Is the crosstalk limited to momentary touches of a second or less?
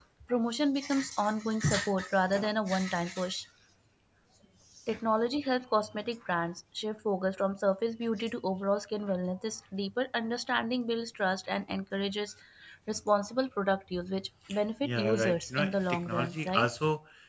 No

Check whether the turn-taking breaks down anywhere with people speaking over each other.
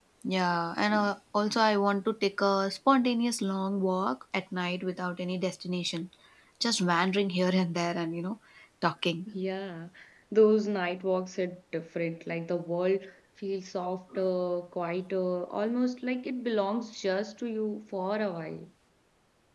No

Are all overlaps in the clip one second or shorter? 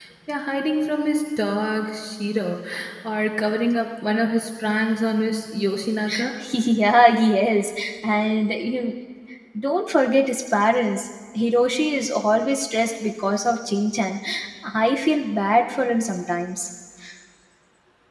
Yes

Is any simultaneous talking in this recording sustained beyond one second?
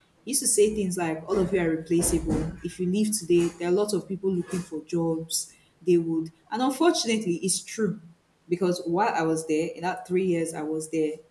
No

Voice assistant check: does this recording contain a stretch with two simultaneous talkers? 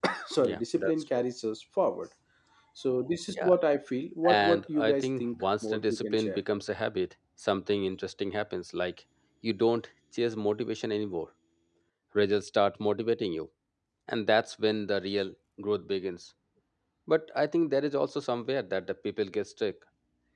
Yes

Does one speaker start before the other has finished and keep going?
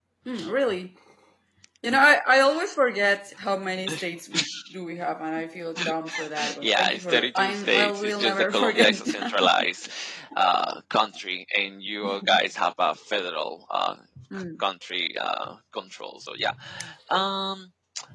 Yes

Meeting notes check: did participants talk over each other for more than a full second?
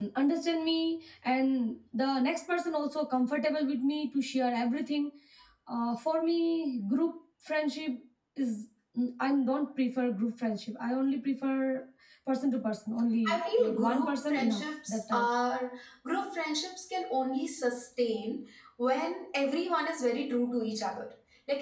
Yes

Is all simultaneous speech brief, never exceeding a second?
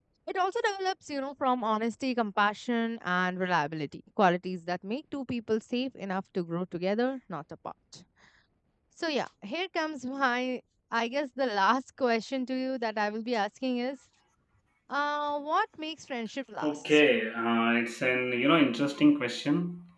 Yes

